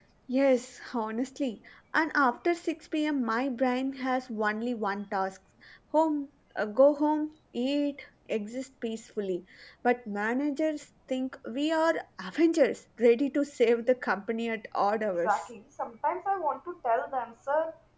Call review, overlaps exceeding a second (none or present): none